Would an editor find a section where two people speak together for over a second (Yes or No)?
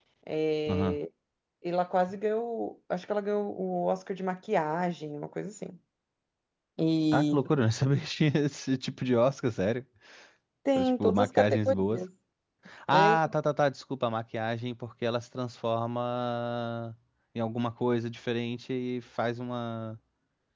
Yes